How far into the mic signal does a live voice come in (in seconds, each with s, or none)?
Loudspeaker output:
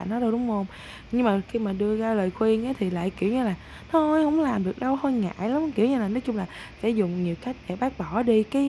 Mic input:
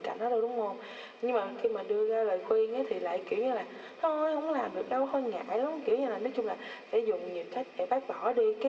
none